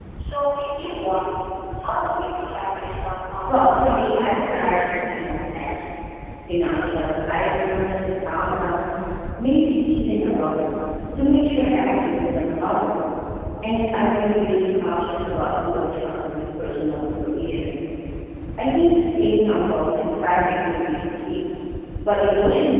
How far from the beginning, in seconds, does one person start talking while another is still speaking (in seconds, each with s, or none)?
3.5 s